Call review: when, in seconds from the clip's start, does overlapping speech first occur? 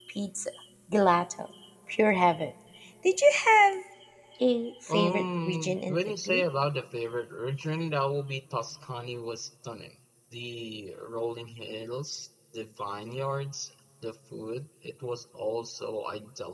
5 s

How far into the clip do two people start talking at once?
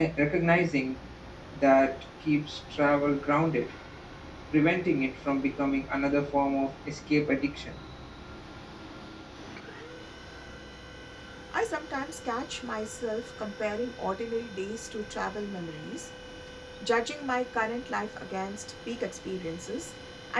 none

